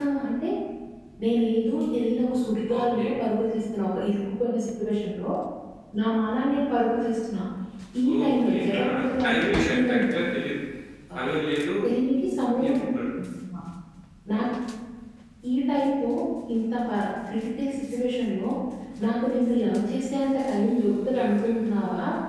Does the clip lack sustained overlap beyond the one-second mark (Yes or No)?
No